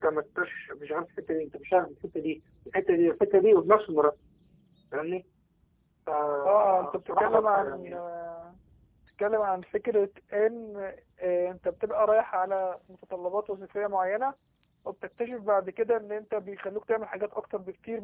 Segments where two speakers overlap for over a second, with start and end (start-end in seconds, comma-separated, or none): 6.4-8.0